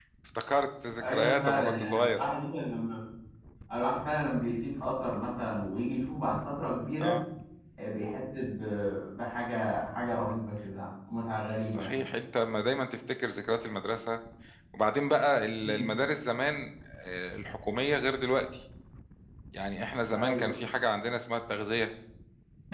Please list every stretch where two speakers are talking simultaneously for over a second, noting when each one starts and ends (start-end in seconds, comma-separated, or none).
1.0-2.2